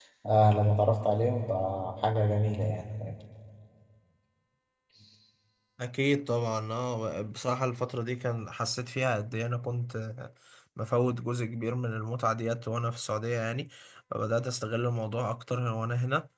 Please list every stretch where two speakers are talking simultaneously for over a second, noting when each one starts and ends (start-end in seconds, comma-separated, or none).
none